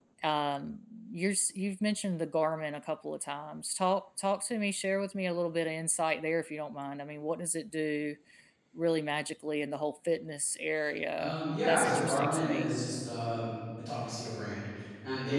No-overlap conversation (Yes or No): No